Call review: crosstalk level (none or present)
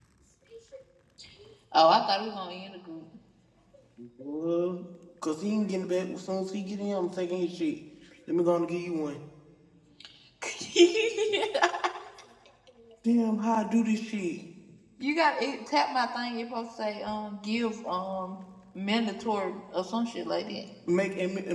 none